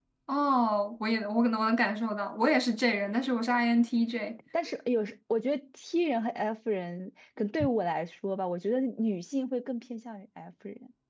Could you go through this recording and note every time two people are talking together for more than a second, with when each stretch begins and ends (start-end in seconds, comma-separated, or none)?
none